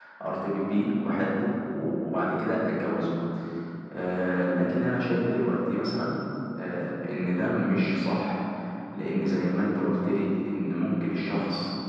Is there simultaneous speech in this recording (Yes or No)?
No